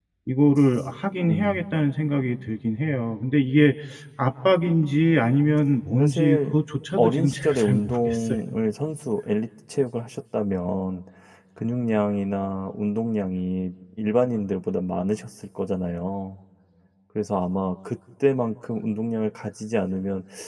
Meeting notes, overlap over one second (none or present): present